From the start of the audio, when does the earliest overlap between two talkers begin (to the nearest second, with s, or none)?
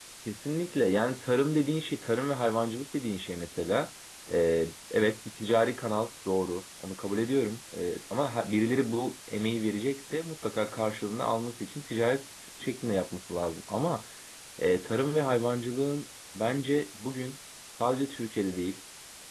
none